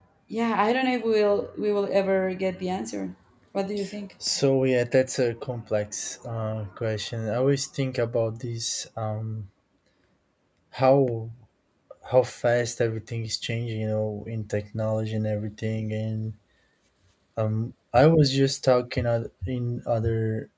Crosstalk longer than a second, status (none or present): none